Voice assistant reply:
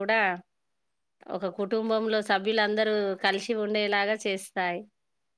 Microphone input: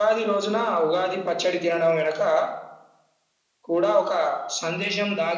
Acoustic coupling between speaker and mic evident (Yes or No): No